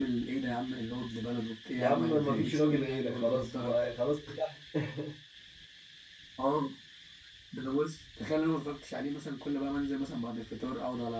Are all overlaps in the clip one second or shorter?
No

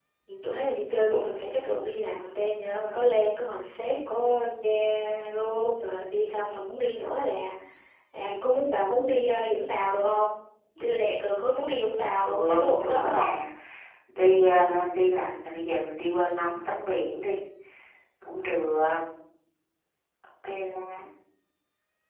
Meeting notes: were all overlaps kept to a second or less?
No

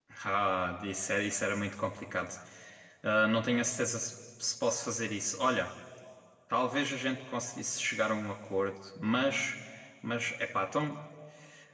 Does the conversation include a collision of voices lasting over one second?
No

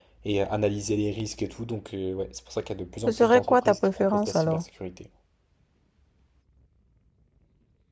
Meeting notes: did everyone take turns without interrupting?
No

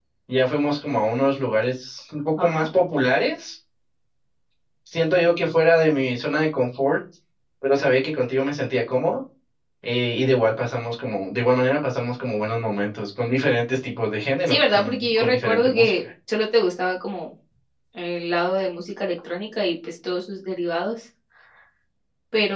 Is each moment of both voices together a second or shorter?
No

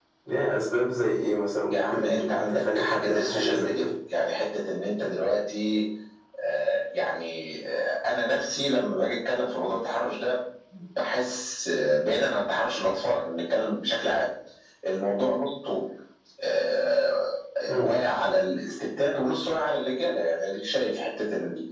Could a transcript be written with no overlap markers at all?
No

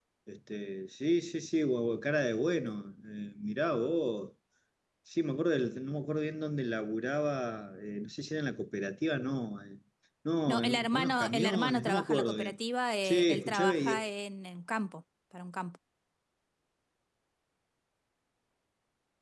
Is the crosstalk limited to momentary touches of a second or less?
No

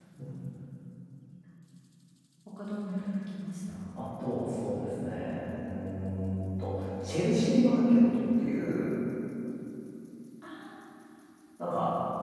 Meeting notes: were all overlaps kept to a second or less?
Yes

